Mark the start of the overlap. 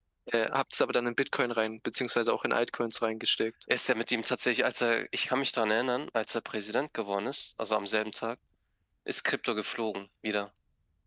none

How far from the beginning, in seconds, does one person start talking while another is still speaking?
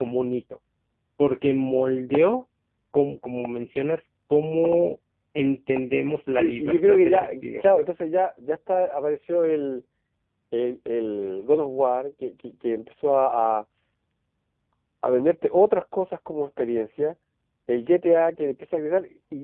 6.4 s

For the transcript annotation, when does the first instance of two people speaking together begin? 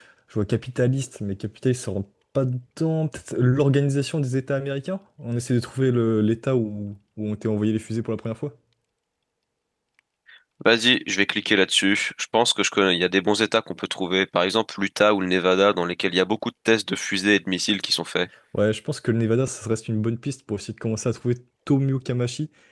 none

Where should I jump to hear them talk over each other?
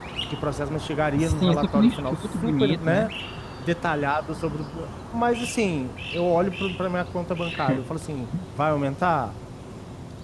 1.2 s

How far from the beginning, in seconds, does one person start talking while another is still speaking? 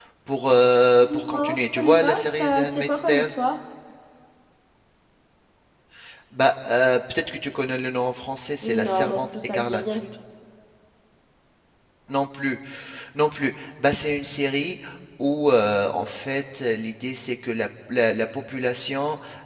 1.3 s

